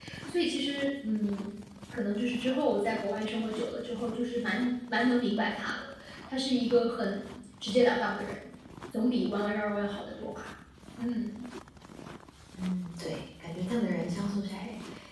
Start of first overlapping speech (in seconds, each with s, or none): none